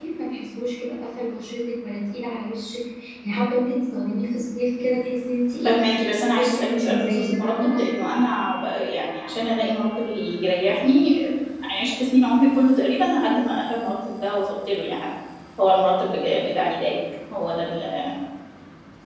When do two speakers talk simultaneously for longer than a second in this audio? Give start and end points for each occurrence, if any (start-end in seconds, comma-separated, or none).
6.3-8.1